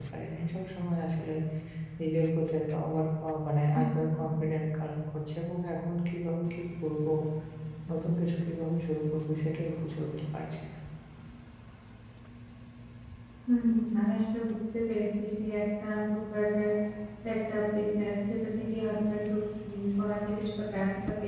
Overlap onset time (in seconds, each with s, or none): none